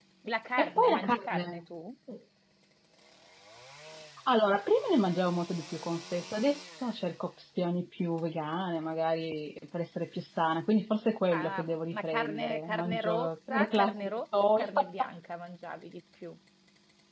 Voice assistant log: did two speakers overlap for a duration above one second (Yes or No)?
Yes